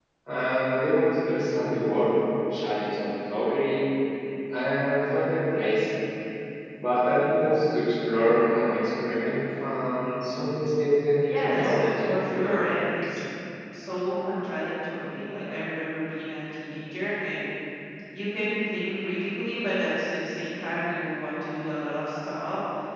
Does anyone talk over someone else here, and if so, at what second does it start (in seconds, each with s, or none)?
11.3 s